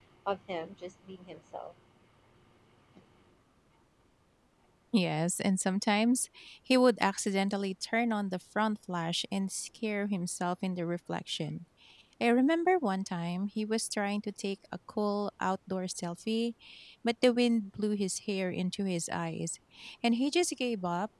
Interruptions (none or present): none